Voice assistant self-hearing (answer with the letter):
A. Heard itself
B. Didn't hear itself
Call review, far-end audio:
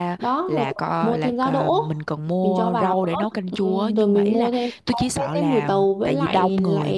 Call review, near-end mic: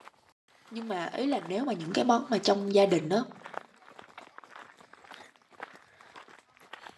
B